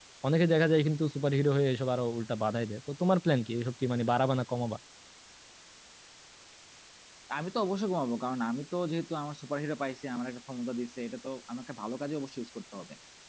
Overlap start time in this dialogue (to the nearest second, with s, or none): none